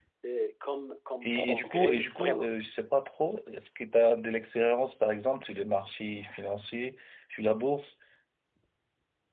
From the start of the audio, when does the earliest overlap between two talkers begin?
1.2 s

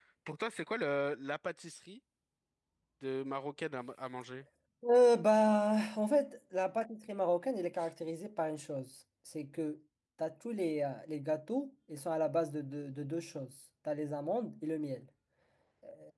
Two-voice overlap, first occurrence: none

